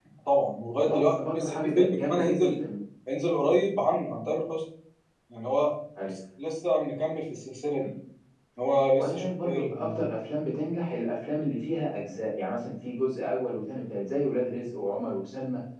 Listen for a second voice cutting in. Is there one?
Yes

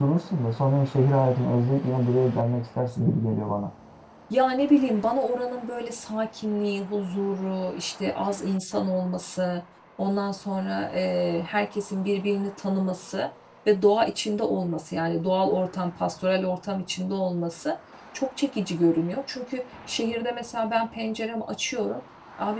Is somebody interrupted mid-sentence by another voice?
No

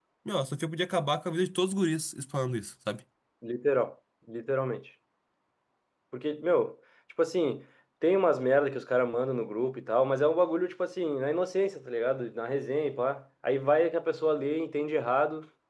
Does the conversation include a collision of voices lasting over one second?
No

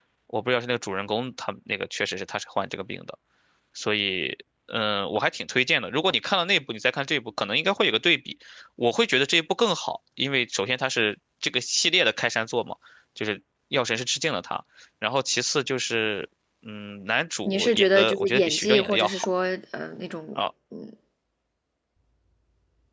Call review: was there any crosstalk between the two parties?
Yes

